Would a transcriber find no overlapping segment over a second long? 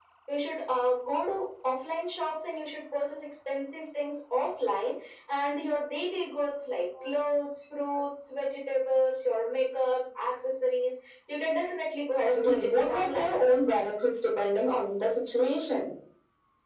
No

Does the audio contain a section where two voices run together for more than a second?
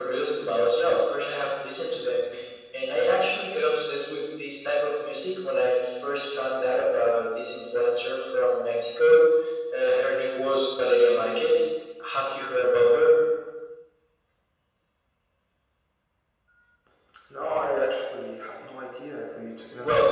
No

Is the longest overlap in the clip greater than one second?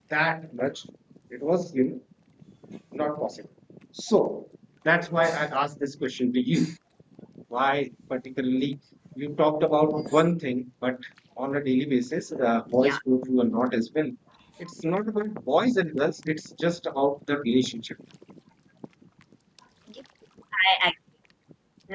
No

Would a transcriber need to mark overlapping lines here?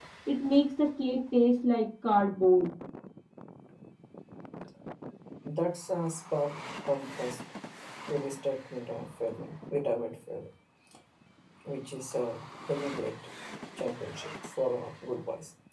No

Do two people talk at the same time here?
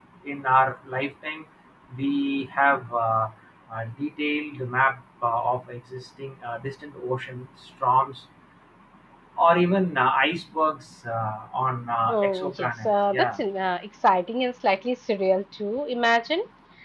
Yes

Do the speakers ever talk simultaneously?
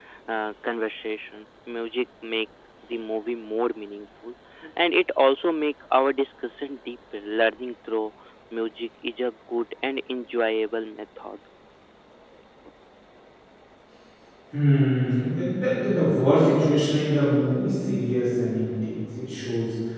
No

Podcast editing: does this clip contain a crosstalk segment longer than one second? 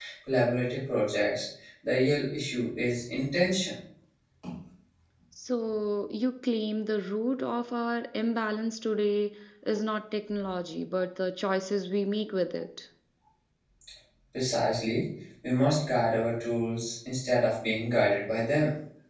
No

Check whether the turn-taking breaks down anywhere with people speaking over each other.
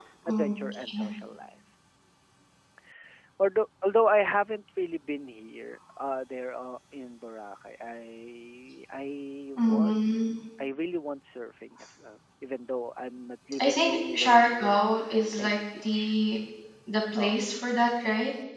Yes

